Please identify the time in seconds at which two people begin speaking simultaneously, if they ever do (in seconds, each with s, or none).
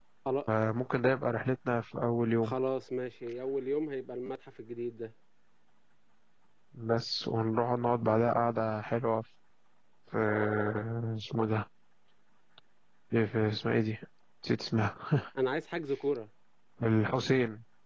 none